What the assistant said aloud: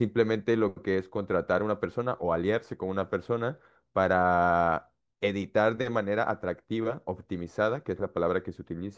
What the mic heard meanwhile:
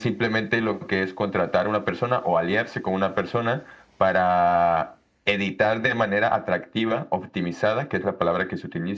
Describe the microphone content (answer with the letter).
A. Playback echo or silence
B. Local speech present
A